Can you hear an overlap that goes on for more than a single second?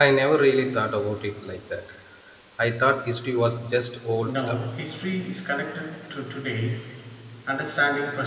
No

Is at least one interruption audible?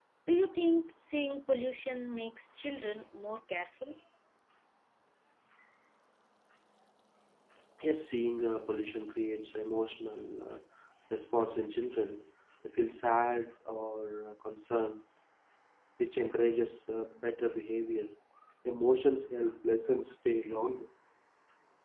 No

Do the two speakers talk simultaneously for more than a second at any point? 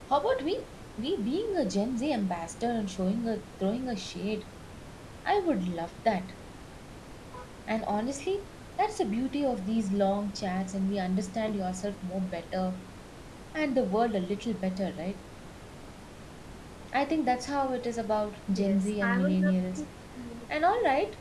Yes, from 18.5 s

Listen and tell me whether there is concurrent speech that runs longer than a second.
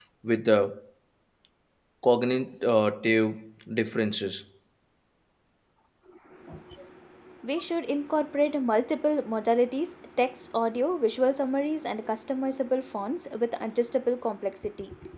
No

